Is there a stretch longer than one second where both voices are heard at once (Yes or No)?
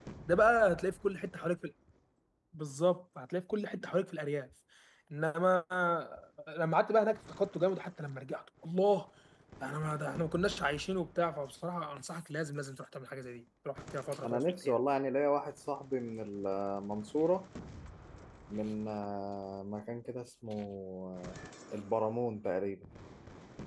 No